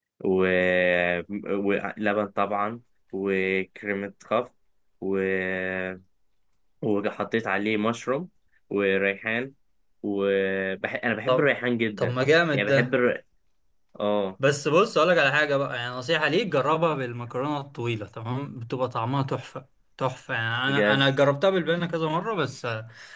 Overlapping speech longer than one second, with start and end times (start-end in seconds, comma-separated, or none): none